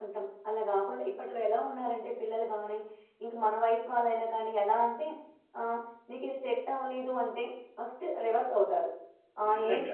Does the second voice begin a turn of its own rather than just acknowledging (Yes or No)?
No